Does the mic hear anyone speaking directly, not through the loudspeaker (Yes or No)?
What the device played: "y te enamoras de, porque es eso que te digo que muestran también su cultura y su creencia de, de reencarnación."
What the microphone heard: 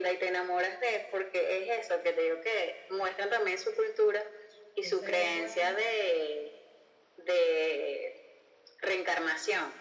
Yes